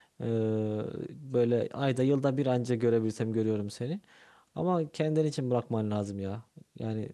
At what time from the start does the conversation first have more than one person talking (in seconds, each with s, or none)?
none